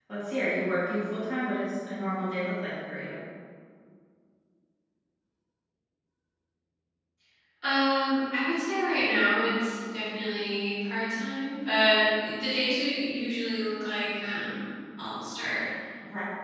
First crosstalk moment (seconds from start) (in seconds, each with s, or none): none